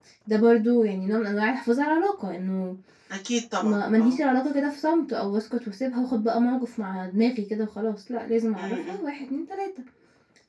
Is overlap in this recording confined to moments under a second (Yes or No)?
Yes